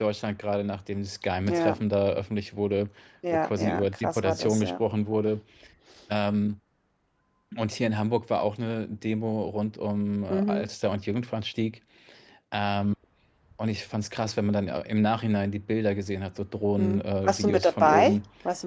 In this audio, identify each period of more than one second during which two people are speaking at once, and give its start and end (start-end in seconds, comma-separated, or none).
3.3-4.8, 16.8-18.2